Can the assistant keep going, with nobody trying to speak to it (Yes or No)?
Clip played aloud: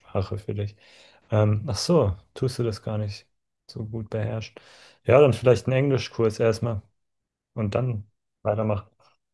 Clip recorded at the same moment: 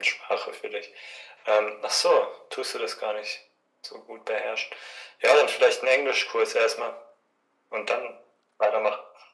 Yes